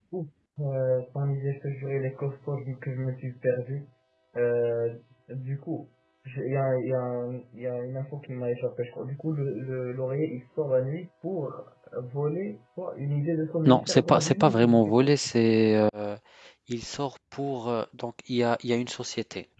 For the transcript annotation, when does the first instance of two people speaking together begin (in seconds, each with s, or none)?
13.6 s